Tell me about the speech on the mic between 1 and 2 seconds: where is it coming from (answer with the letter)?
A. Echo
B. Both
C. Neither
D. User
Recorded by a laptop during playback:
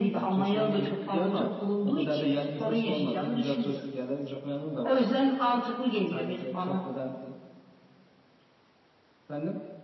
A